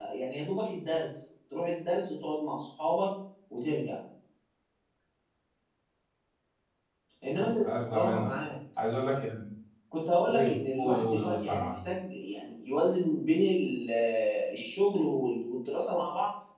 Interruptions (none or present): present